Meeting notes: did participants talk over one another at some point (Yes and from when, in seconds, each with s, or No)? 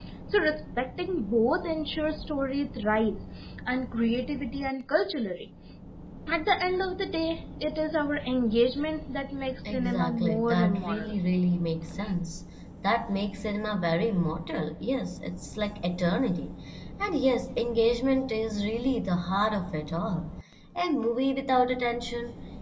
Yes, from 9.6 s